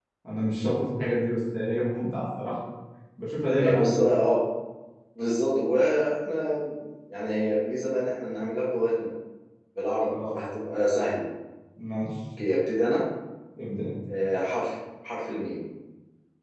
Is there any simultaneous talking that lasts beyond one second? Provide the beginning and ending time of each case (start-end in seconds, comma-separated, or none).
none